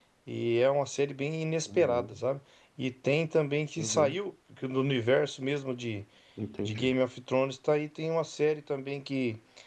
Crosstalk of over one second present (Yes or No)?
No